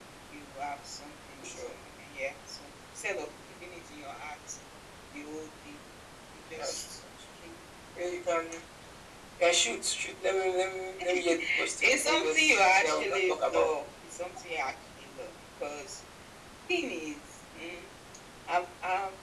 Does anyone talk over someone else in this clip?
Yes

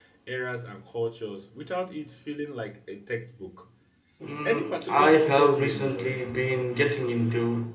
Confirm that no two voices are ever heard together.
No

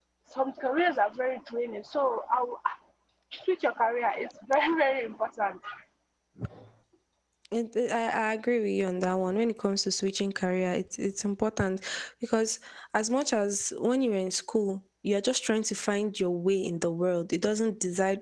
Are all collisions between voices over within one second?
Yes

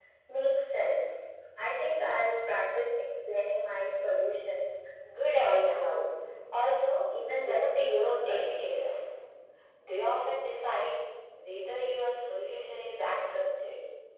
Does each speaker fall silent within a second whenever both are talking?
No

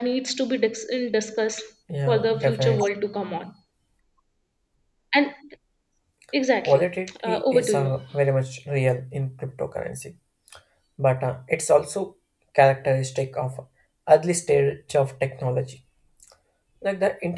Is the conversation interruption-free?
No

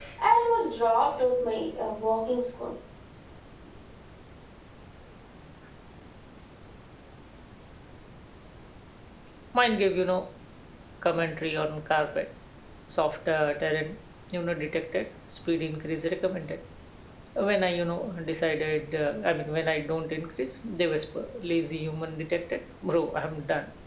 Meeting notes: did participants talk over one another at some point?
No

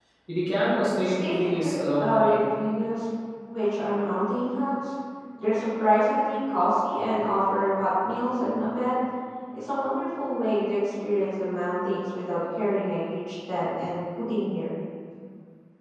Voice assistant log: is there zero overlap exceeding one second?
No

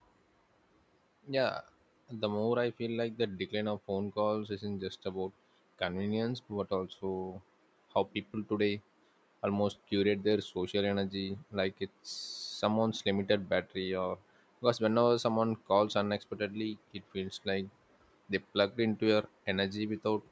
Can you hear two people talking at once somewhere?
No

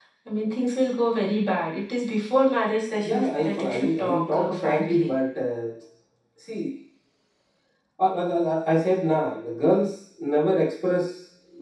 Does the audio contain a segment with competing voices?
Yes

